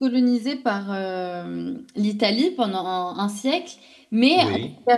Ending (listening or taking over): listening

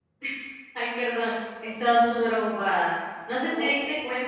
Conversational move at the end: listening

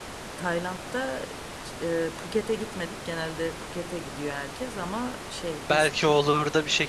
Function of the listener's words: taking over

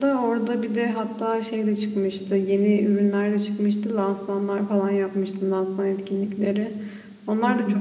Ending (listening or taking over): listening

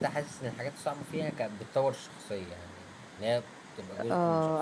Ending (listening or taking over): taking over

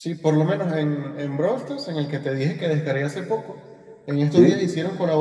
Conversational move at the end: listening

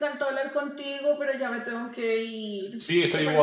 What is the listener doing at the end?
taking over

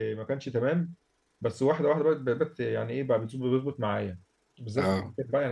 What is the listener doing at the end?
listening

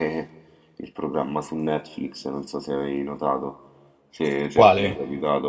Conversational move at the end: listening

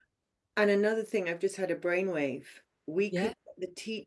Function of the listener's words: listening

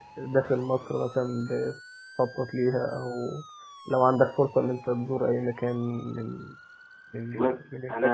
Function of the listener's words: taking over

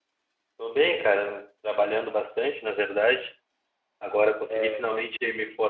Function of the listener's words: listening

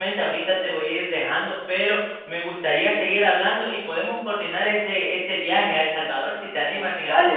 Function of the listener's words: taking over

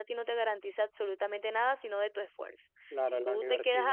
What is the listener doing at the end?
taking over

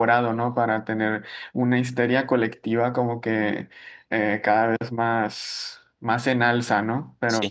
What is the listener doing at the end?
listening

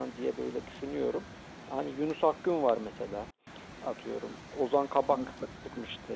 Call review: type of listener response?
listening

